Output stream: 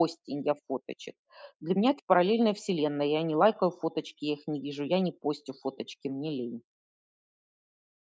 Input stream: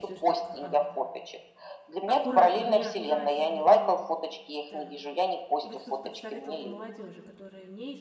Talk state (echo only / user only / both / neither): both